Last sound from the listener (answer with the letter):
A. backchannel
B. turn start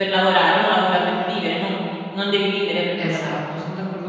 B